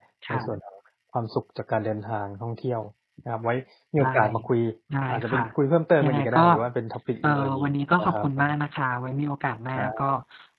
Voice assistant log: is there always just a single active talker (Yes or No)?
No